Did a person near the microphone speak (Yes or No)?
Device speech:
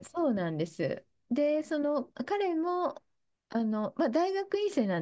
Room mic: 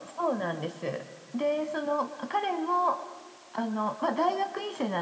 No